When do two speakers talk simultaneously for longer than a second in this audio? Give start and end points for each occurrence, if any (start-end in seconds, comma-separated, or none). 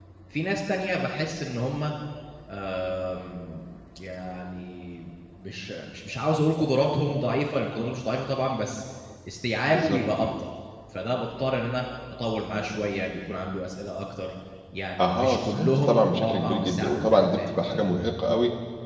15.0-17.8